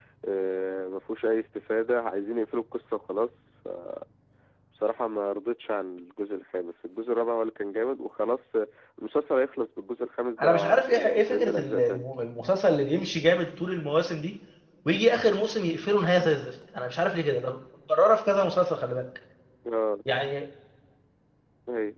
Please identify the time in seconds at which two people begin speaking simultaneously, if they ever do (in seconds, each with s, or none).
10.4 s